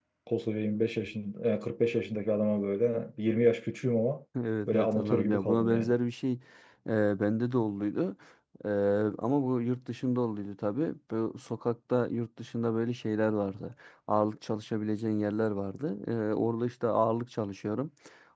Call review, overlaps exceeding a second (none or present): present